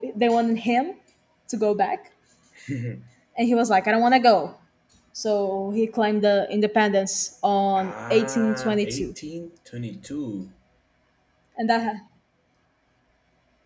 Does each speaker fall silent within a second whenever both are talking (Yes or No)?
No